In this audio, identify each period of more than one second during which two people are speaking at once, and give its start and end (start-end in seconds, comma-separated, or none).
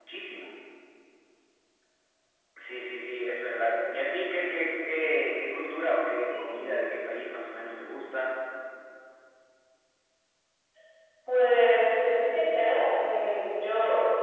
none